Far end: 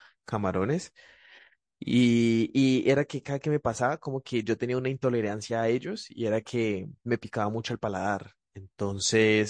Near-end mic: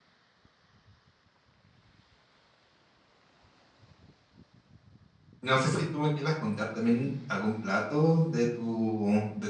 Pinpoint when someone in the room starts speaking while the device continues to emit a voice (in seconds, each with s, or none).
5.4 s